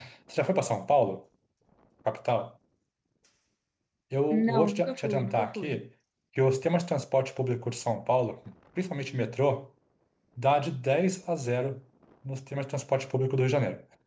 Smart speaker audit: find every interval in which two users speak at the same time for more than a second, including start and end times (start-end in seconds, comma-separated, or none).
4.3-5.8